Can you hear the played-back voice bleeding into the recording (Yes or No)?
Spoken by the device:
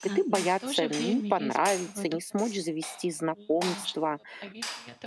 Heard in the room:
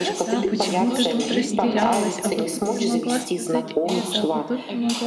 Yes